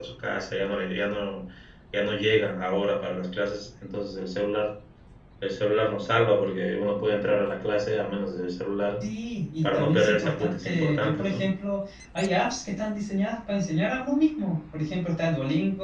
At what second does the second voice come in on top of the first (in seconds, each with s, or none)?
9.6 s